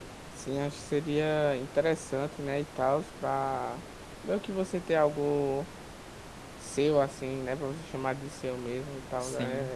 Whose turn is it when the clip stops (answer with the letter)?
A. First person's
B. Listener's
B